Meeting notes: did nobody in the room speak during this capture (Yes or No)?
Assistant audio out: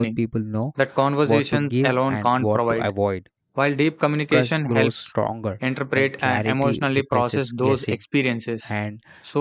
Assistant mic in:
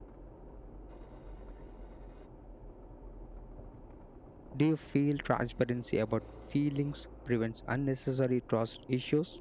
No